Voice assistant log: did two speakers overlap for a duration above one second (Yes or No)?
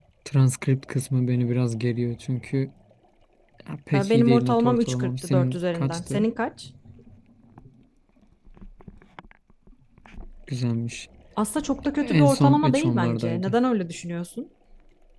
Yes